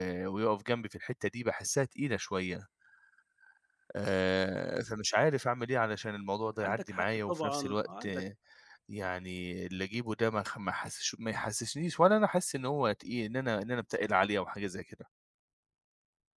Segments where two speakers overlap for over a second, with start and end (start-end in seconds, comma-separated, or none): 6.6-8.2